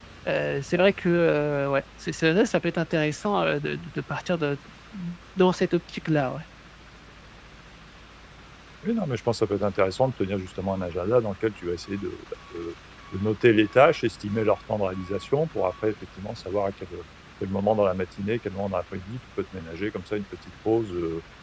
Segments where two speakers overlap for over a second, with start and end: none

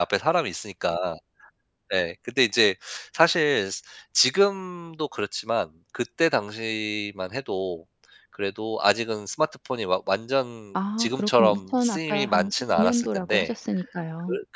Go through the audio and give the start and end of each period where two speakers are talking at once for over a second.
11.0-13.5

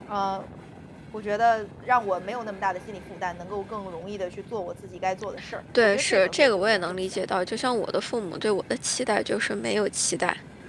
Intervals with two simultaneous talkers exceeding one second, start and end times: 5.8-7.0

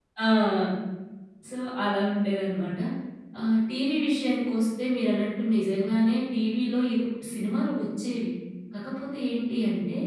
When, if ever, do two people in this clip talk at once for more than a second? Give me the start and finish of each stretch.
none

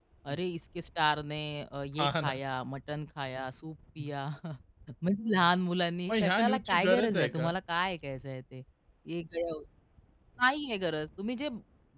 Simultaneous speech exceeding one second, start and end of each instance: 6.2-7.5

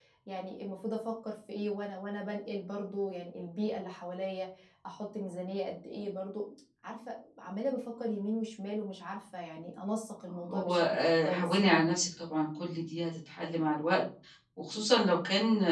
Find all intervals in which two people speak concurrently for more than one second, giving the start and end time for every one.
10.3-11.8

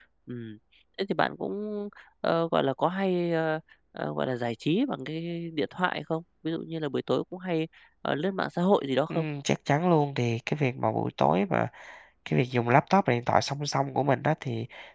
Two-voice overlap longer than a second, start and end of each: none

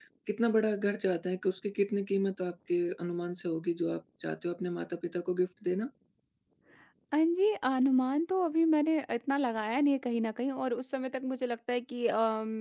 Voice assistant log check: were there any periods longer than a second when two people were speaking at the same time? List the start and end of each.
none

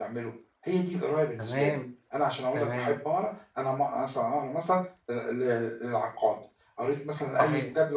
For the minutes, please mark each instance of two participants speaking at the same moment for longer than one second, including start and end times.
none

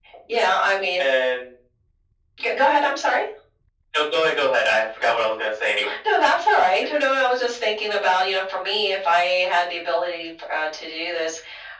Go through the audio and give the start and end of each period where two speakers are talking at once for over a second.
none

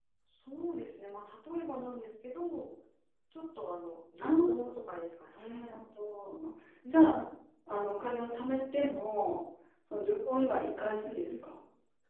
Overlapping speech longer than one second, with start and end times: none

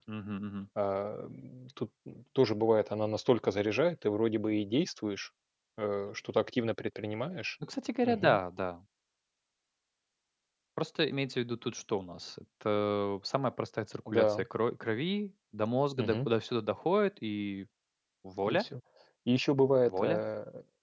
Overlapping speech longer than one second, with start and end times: none

